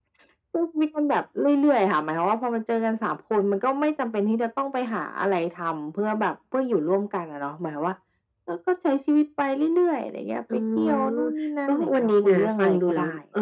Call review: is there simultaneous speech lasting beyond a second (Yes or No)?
Yes